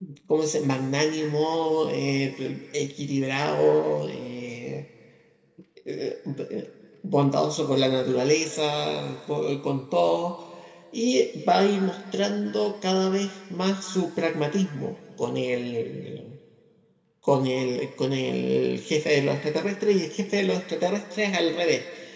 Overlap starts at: none

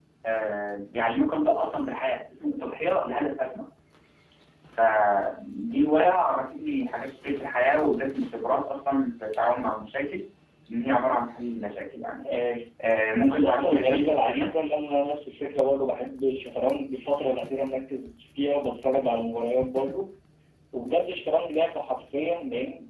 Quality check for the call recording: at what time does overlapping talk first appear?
13.2 s

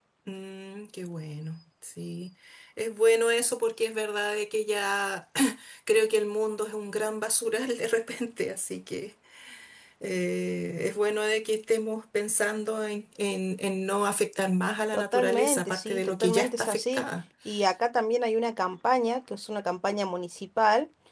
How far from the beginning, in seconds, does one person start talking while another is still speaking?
14.9 s

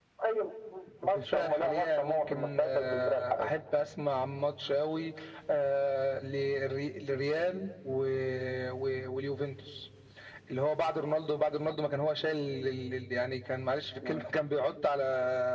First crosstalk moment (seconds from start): 1.0 s

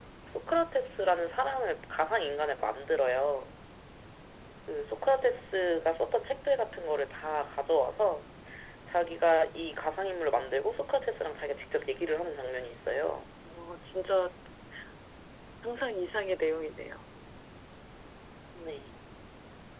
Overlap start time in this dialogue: none

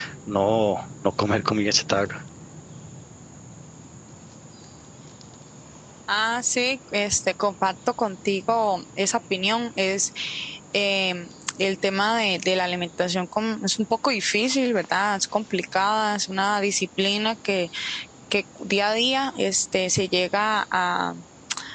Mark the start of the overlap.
none

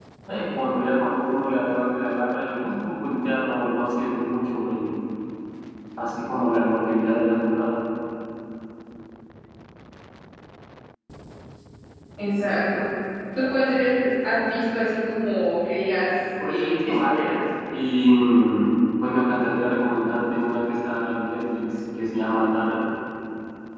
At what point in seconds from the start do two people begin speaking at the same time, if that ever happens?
16.4 s

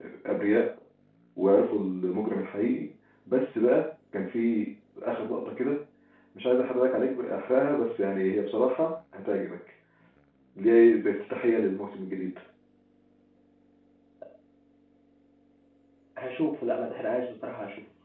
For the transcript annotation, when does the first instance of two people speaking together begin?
none

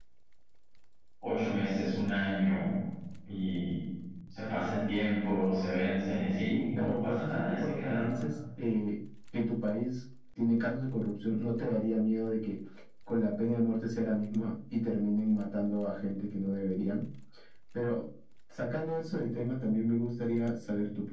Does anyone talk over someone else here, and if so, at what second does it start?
6.8 s

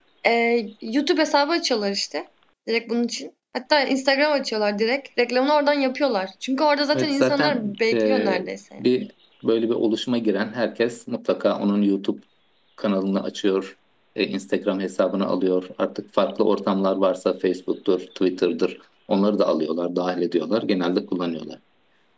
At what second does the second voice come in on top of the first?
6.9 s

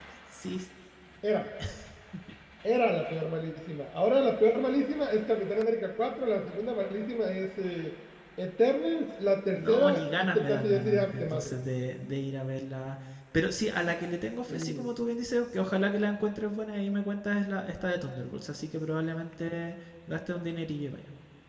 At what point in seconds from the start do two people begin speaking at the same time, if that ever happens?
9.5 s

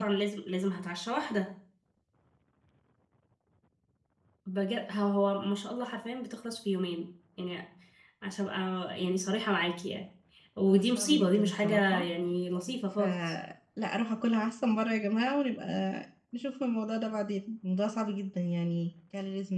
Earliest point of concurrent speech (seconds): 10.7 s

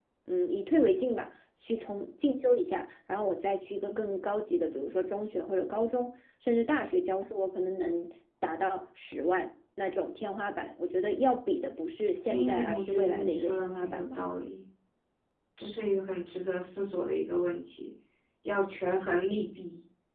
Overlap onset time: 12.3 s

